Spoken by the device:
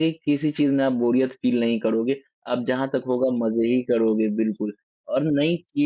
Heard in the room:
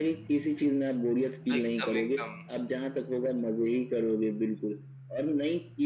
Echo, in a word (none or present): present